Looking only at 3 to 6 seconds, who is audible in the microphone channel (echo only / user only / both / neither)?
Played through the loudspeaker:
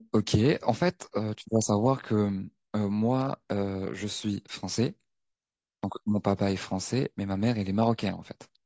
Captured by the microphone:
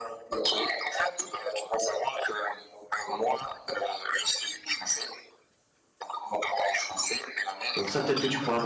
echo only